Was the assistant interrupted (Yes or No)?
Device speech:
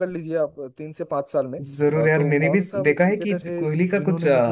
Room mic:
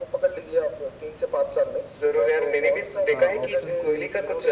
Yes